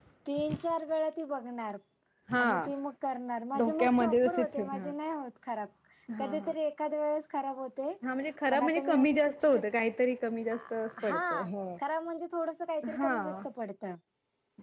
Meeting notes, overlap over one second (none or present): present